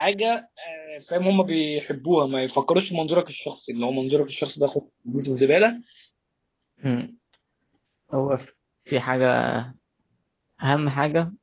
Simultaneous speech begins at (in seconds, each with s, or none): none